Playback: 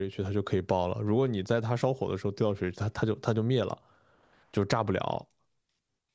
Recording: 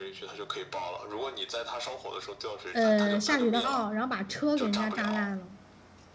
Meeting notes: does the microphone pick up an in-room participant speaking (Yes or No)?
Yes